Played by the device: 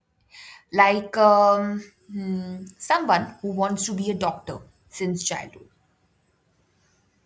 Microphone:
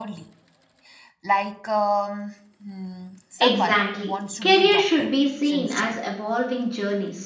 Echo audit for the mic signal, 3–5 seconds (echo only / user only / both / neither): both